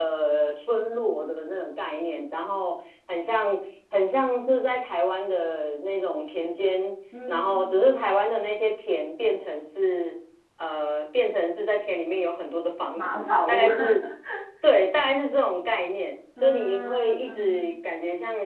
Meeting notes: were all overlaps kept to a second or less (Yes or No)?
No